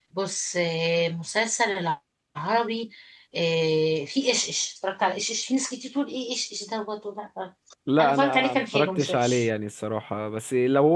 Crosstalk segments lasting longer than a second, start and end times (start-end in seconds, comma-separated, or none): 8.0-9.4